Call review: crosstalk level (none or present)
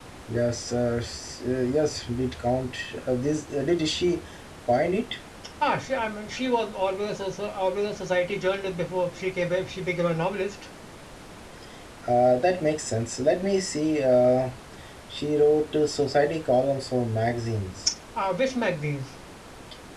none